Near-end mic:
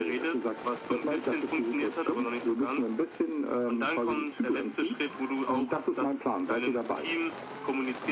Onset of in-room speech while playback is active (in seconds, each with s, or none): none